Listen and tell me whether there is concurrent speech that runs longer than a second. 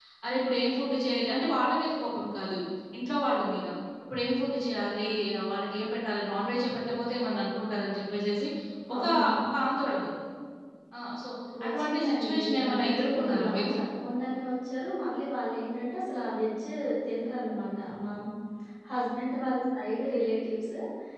Yes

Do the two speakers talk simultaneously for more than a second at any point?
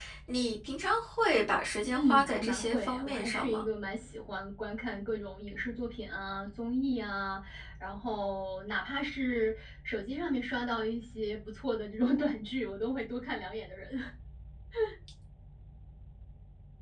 Yes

